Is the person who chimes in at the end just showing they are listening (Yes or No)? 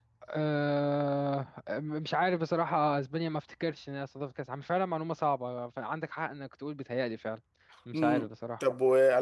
No